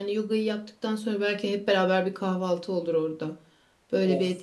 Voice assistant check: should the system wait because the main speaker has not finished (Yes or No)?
No